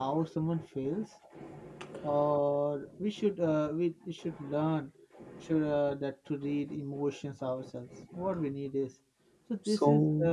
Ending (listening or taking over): listening